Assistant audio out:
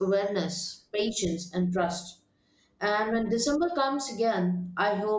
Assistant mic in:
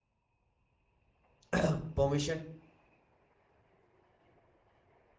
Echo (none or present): none